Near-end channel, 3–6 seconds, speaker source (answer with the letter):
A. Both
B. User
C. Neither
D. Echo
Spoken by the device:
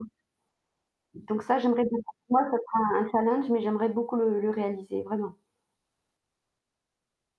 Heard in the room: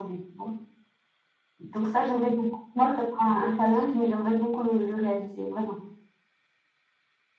D